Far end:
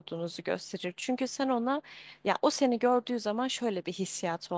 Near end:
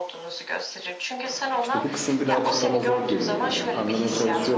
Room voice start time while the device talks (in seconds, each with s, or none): 1.6 s